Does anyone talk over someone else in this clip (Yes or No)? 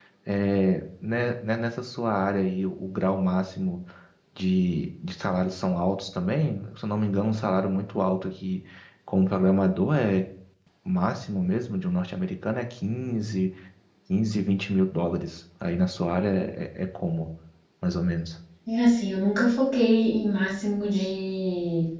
No